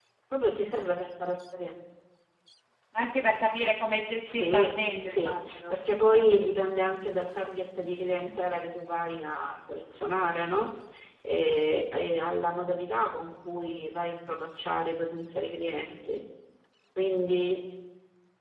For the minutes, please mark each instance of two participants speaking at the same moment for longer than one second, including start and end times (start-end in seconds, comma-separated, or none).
4.2-5.8